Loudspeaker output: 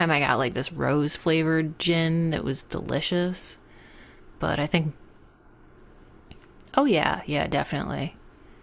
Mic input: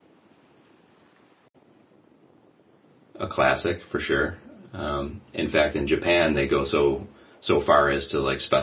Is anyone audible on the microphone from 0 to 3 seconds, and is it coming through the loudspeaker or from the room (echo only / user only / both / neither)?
neither